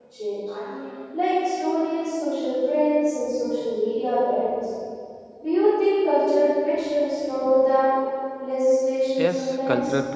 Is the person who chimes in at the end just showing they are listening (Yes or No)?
No